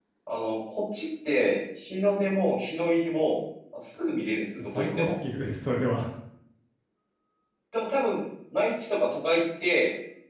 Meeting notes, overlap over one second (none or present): none